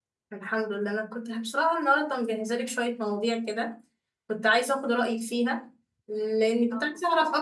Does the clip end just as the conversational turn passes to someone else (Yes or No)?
No